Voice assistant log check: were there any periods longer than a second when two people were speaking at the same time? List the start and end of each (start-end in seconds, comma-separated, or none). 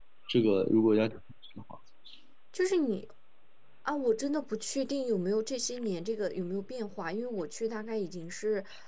none